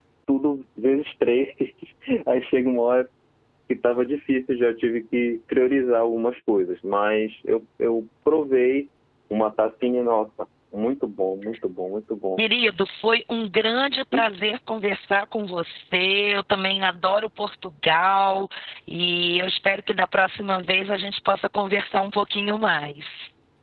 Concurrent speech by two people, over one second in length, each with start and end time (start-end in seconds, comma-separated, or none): none